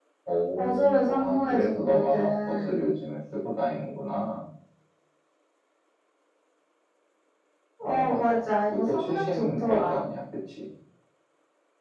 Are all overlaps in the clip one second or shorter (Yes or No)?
No